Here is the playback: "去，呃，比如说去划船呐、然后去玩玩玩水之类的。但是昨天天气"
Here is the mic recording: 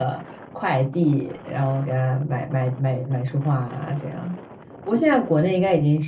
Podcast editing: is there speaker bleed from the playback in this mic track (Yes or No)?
No